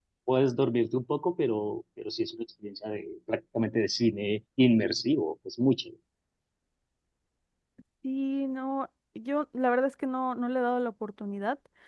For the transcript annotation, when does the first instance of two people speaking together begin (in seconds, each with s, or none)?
none